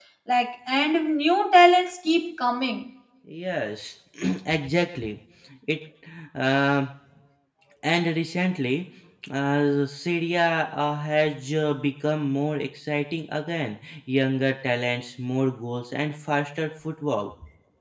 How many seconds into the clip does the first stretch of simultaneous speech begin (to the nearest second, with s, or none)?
none